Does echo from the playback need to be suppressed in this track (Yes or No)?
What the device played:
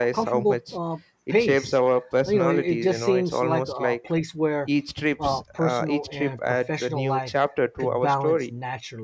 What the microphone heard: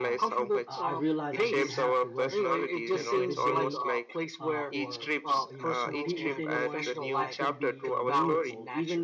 Yes